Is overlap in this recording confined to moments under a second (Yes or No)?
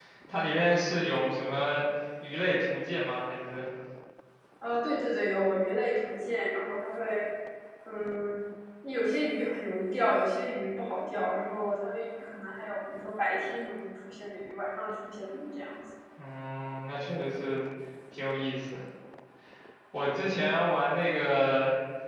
Yes